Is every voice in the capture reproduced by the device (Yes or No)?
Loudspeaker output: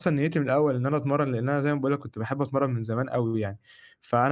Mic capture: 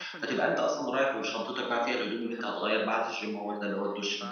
No